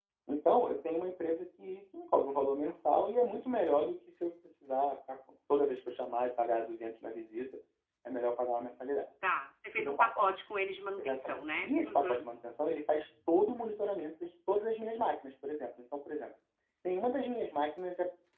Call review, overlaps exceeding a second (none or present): present